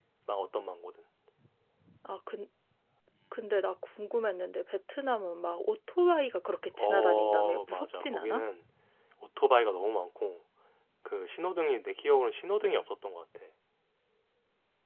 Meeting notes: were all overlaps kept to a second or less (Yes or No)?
No